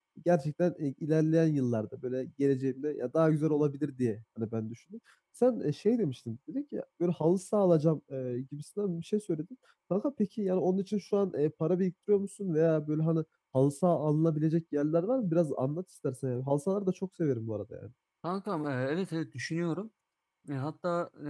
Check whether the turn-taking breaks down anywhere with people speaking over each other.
No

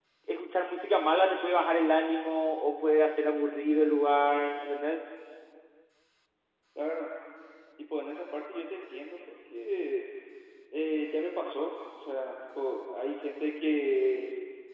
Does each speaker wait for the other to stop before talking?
Yes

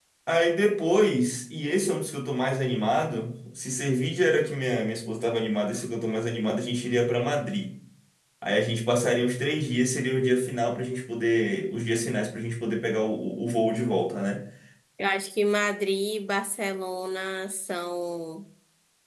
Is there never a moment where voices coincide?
Yes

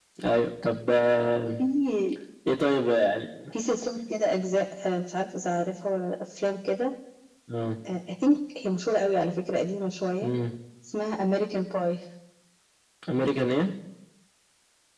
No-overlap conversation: Yes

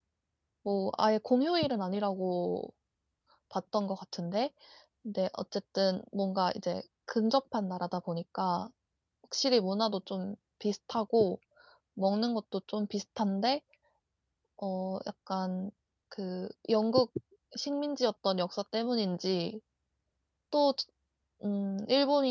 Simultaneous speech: No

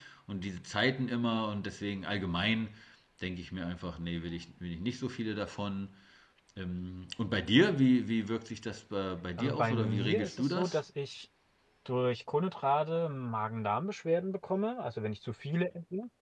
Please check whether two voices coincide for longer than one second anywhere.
Yes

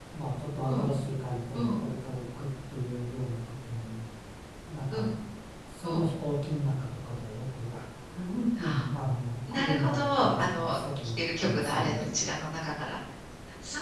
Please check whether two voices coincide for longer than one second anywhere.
Yes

